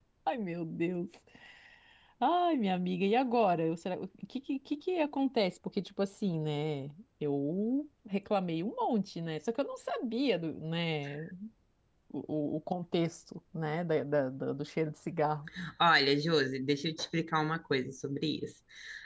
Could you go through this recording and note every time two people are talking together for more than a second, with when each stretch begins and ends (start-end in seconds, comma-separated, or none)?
none